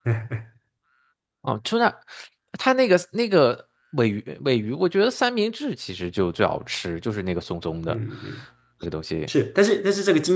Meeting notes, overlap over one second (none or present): none